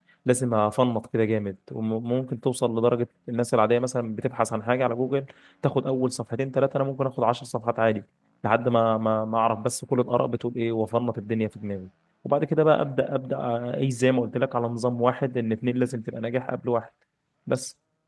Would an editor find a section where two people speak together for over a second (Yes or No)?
No